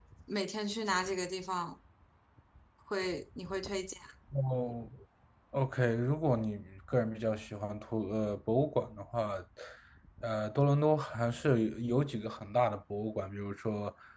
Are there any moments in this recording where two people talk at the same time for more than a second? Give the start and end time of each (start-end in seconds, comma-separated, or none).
none